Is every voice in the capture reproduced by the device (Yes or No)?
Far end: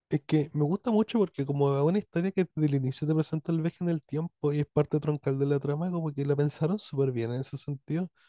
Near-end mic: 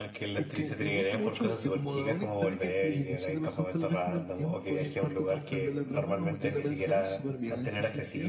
No